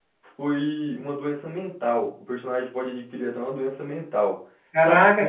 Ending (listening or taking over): taking over